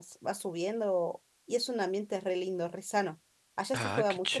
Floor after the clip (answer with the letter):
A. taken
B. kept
A